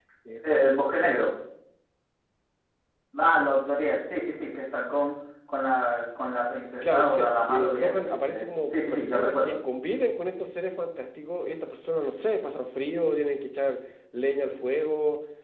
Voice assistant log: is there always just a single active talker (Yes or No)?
No